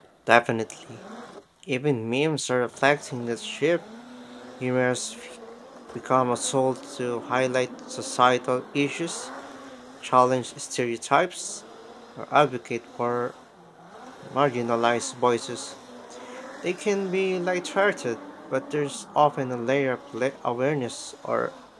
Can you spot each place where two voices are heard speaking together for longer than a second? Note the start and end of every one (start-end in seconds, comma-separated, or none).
none